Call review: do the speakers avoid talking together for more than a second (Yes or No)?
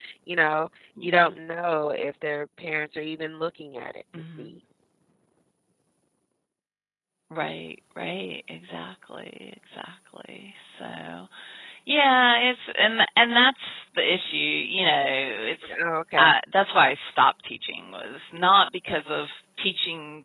Yes